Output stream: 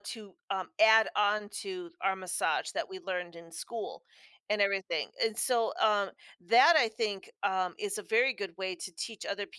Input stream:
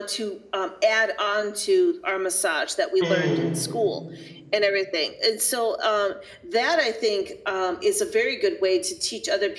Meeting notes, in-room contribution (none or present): present